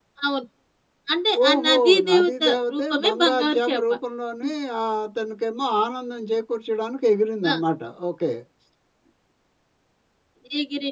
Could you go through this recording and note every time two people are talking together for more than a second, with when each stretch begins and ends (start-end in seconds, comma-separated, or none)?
1.5-3.8